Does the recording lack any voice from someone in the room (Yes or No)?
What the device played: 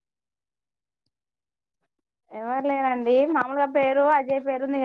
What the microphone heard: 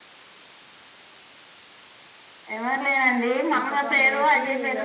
No